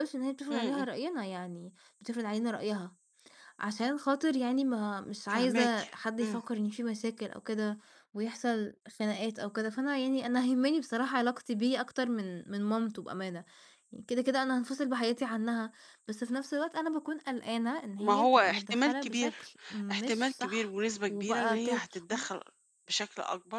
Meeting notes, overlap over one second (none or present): present